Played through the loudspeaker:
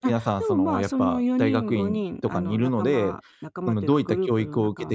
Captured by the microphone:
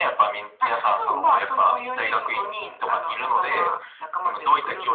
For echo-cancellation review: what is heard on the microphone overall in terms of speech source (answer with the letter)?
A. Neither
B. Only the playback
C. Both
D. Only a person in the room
B